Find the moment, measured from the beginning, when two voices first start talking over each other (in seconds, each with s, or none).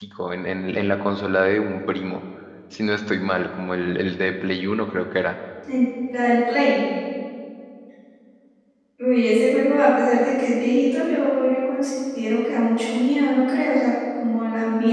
none